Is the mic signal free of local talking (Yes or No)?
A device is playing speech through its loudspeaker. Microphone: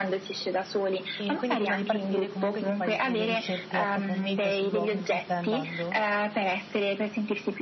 No